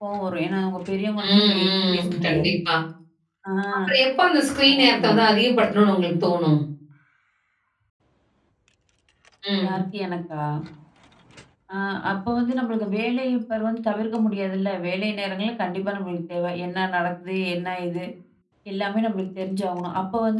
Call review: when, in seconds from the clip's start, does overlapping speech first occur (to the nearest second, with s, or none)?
1 s